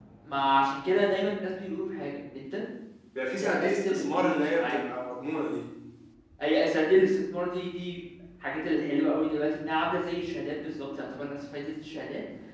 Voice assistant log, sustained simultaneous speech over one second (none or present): present